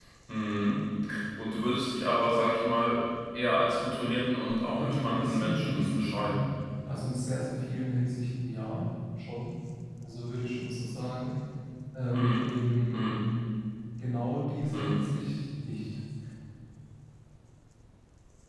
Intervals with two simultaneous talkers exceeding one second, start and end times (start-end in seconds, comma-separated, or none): 4.8-6.5